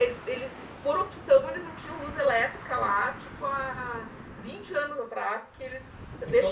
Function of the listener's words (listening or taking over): listening